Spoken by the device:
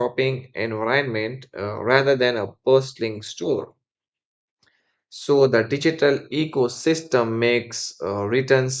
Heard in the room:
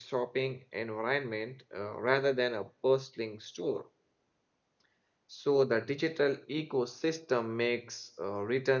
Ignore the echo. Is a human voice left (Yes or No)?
No